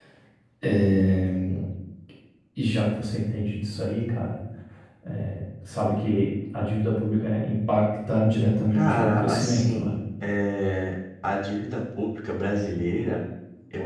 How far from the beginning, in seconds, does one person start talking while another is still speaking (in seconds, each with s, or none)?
8.7 s